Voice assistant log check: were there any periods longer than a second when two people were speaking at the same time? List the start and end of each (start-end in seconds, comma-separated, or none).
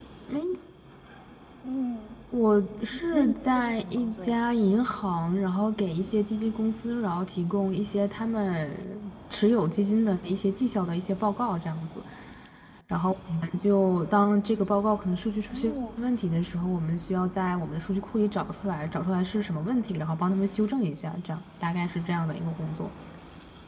3.1-4.4